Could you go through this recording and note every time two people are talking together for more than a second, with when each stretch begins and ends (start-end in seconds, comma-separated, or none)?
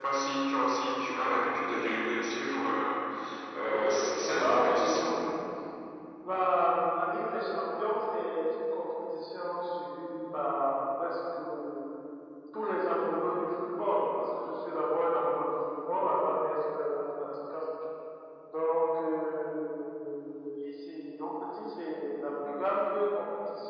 3.7-5.2